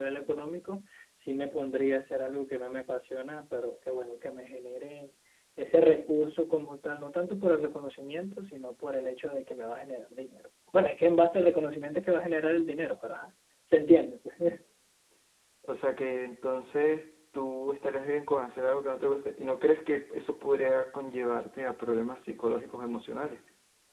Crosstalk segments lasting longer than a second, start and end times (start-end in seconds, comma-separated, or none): none